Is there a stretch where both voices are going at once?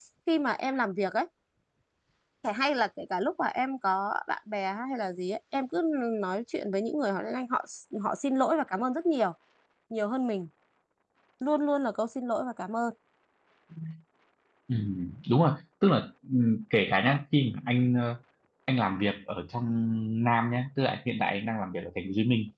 No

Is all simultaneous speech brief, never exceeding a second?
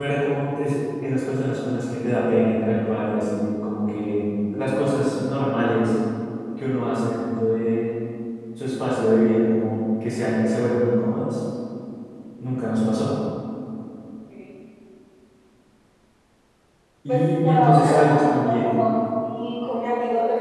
No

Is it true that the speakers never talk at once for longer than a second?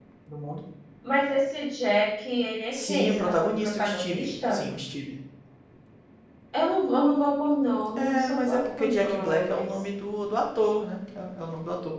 No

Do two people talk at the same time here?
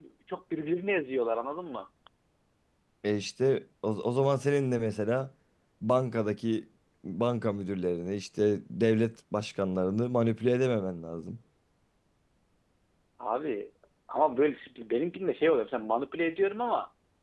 No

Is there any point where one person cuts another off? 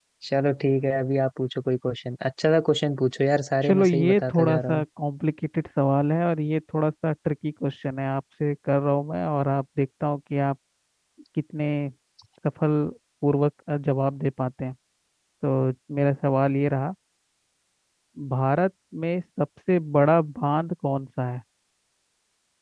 Yes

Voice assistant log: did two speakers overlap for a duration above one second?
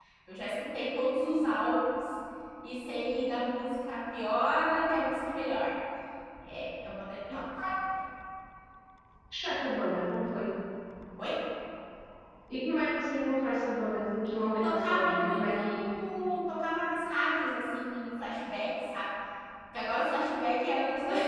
Yes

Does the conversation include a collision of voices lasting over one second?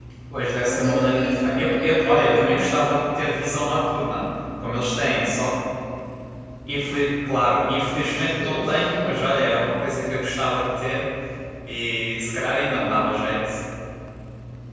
Yes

